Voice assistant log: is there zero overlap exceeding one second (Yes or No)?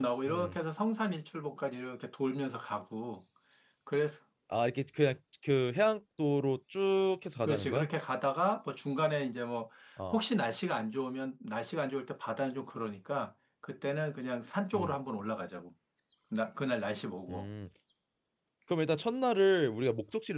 Yes